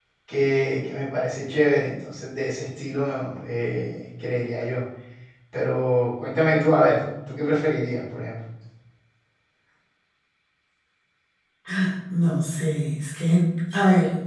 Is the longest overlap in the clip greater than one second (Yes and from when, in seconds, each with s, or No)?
No